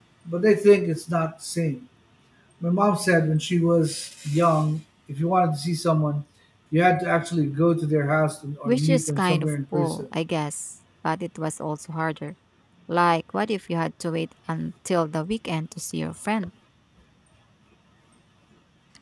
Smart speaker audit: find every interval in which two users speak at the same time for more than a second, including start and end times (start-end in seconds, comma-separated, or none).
8.6-10.1